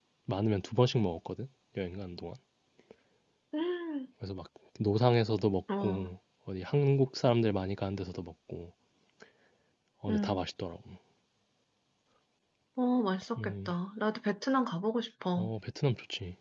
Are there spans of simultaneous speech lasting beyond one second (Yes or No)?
No